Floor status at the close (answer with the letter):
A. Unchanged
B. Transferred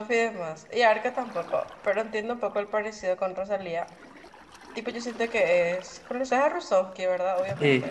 B